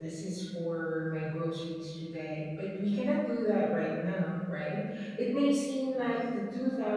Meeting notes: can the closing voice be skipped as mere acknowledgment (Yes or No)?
Yes